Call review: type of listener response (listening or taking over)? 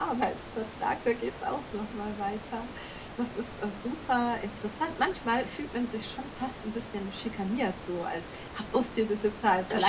listening